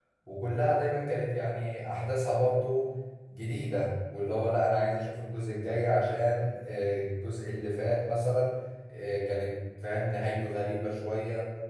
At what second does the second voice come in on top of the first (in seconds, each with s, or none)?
none